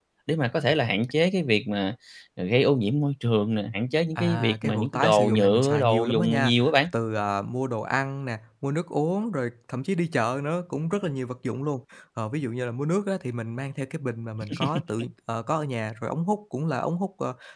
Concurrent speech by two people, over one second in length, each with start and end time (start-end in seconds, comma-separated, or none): 4.2-6.5